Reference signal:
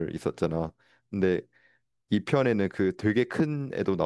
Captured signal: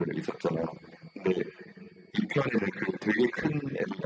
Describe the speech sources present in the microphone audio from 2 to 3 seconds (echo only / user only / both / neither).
echo only